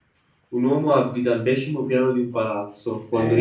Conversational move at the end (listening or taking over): taking over